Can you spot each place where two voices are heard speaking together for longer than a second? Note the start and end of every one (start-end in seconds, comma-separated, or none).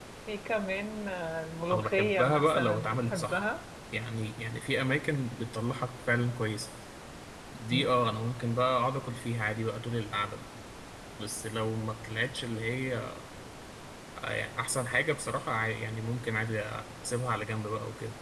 1.7-3.4